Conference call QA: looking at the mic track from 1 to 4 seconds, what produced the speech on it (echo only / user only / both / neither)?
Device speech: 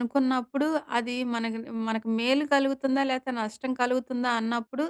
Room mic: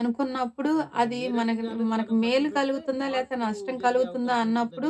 both